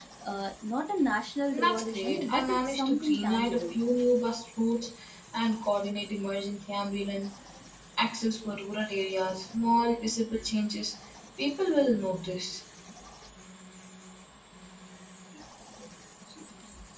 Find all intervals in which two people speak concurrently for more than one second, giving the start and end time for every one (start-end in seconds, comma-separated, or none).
1.5-3.8